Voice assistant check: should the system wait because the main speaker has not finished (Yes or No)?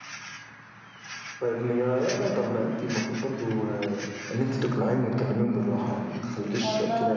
No